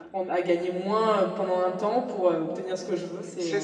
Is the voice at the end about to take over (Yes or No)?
Yes